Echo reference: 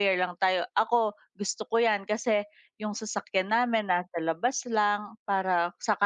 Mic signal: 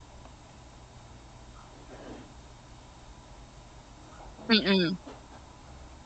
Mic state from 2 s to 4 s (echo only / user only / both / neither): neither